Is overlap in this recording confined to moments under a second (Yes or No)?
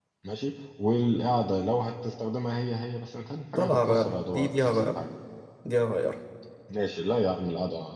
No